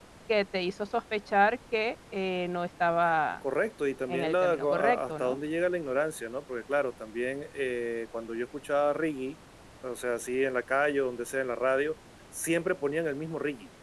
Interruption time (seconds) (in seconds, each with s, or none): 4.1 s